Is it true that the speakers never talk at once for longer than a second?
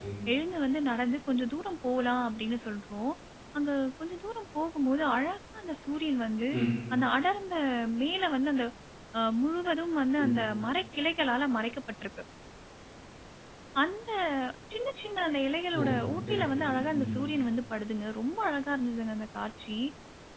No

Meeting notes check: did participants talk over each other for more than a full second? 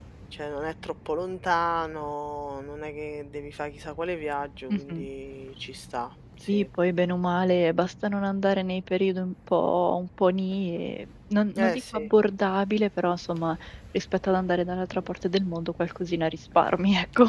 No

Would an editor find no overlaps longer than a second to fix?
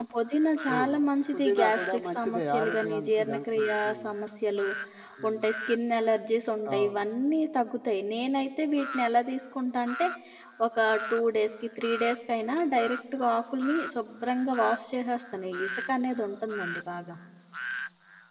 No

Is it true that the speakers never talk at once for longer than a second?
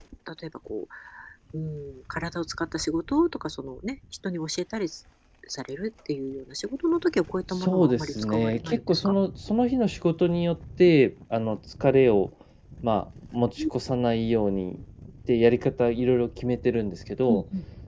No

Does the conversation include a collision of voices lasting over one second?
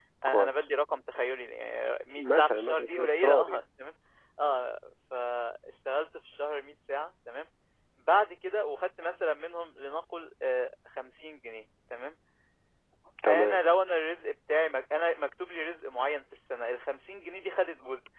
Yes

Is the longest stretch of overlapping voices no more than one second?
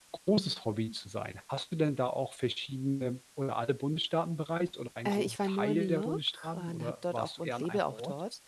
No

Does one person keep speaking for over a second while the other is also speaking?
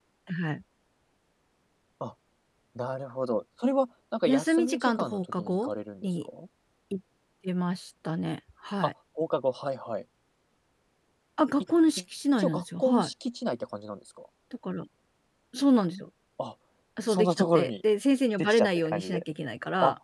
Yes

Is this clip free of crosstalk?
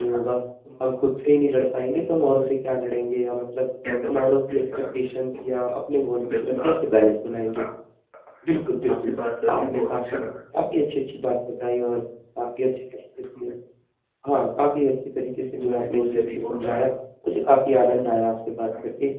No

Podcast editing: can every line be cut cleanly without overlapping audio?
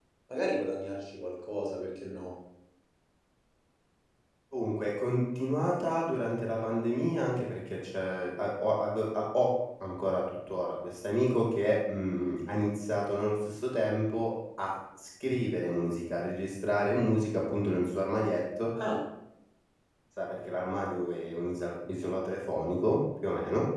Yes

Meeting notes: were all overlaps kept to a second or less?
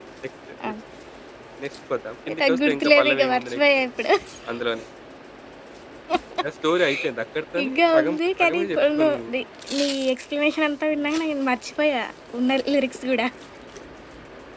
No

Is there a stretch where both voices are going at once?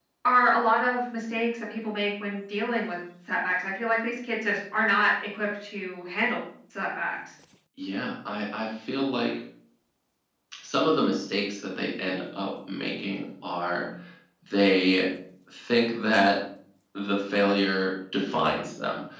No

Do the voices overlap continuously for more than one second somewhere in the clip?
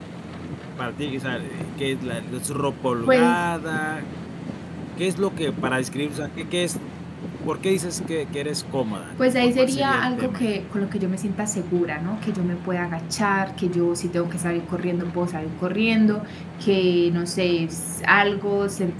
Yes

